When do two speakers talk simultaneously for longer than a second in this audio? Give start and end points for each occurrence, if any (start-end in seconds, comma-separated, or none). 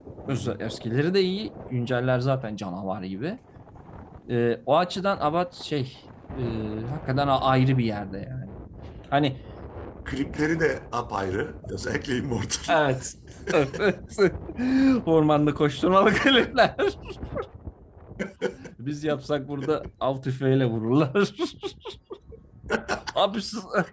none